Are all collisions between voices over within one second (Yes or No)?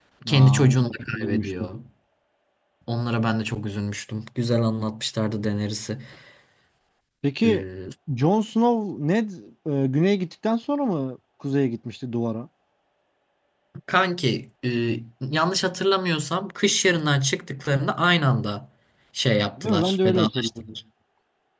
No